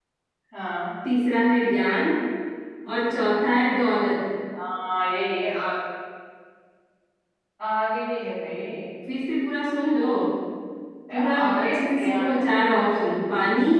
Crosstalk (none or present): present